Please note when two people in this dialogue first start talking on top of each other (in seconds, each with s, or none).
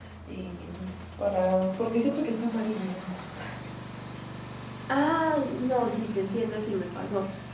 none